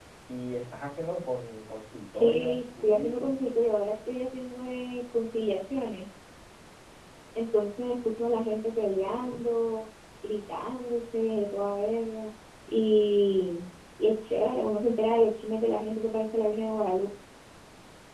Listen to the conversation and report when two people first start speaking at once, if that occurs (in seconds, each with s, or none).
2.1 s